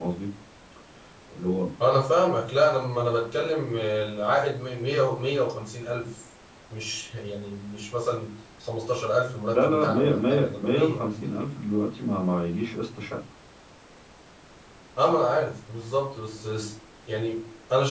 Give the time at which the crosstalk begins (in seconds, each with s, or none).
9.5 s